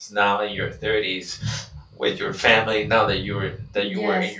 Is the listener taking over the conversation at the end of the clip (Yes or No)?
No